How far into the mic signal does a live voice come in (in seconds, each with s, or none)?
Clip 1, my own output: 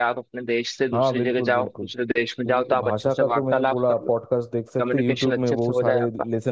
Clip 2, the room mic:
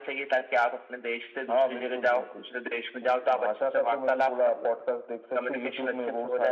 none